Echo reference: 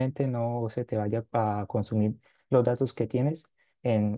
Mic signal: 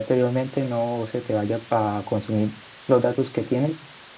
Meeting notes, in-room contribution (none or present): none